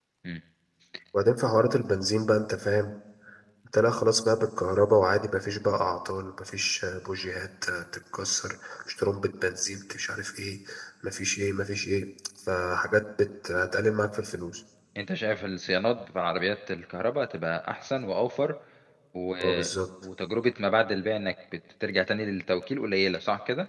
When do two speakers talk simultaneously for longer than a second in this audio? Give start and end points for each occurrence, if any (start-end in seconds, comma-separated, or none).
none